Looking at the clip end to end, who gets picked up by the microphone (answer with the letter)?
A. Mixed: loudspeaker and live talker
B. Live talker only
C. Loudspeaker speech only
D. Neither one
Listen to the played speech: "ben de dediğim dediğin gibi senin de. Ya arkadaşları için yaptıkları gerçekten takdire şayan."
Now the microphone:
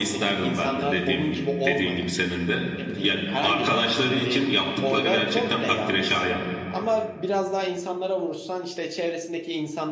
A